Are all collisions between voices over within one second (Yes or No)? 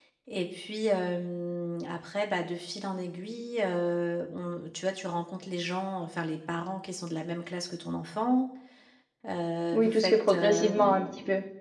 No